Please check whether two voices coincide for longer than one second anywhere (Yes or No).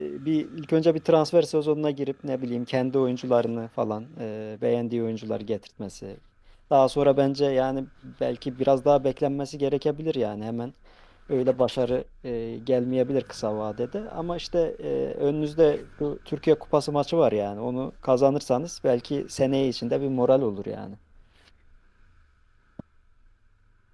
No